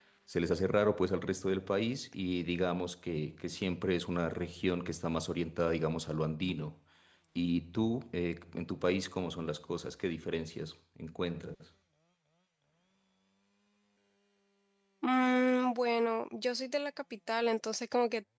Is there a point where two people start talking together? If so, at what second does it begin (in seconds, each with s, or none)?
none